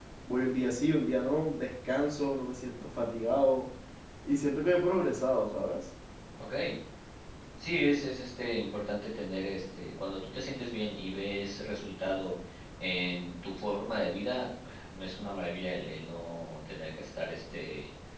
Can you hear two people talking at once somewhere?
No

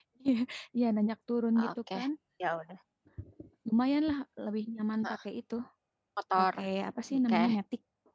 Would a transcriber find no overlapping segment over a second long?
Yes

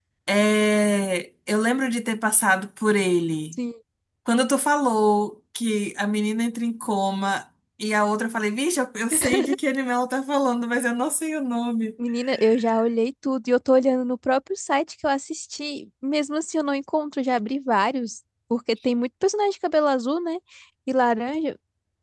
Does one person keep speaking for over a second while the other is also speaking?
No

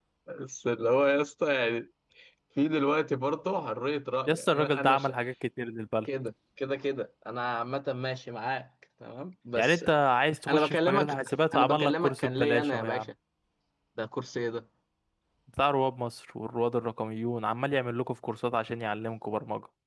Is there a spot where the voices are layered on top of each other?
Yes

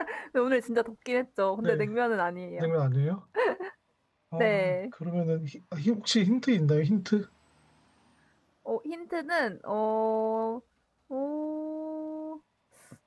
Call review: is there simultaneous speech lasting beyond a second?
No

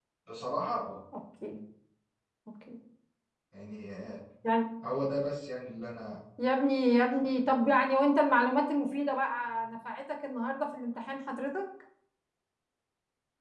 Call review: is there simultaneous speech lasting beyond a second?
No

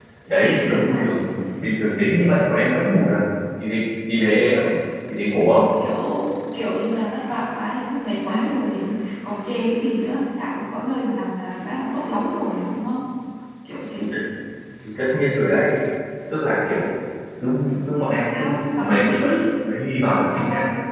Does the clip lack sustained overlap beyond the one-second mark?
No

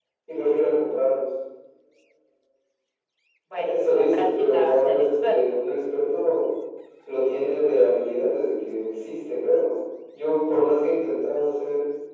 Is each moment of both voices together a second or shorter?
No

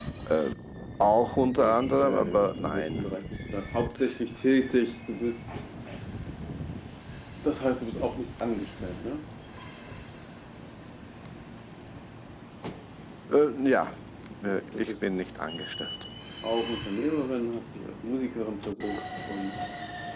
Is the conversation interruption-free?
No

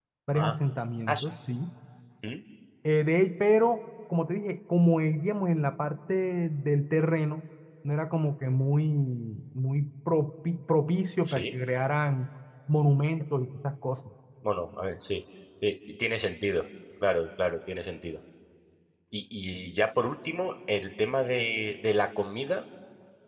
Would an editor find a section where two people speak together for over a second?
No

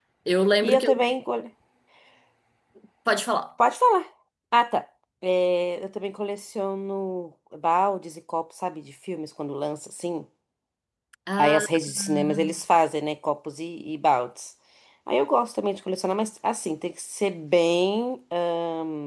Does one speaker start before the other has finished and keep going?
Yes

